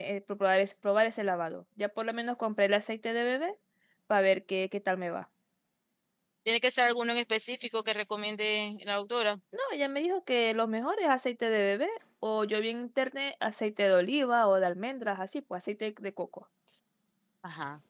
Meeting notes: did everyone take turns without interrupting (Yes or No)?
Yes